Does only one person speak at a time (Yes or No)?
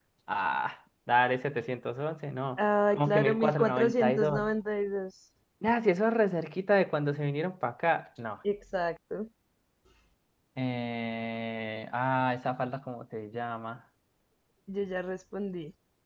No